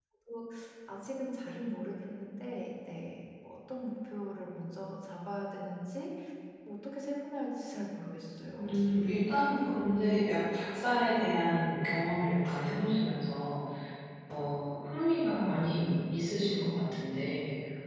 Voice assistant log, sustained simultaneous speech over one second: none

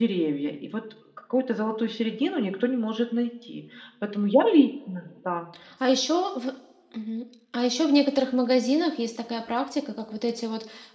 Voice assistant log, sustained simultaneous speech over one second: none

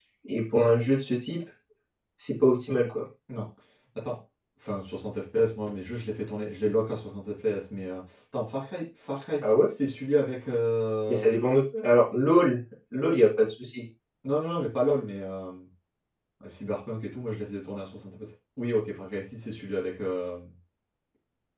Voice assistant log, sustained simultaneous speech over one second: none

